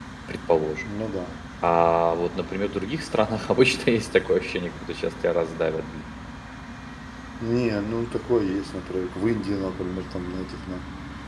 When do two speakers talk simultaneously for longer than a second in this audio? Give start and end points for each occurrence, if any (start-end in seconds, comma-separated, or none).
none